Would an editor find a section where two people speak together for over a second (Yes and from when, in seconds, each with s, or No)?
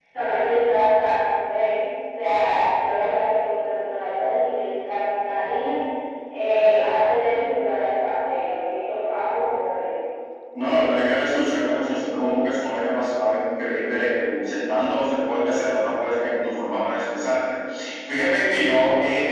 No